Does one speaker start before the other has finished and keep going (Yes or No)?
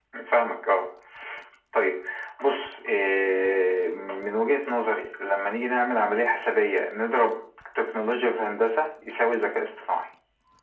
No